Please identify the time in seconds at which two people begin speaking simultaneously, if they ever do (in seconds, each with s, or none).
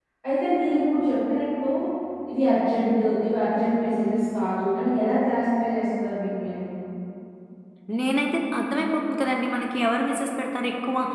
none